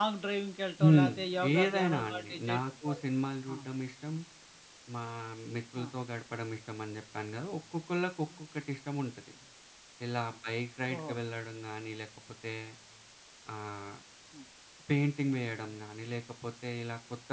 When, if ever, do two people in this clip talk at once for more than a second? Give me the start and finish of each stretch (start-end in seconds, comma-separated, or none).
1.6-3.0